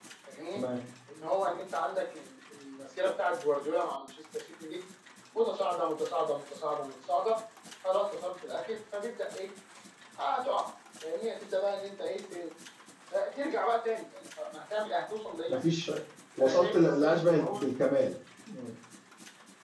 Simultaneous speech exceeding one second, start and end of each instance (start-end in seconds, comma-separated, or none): 16.4-17.6